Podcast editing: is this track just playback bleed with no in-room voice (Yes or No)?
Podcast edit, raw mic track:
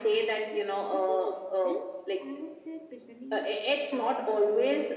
No